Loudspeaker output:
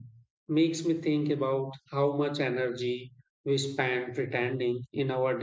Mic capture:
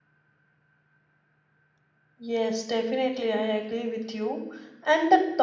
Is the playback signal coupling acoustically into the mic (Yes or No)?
No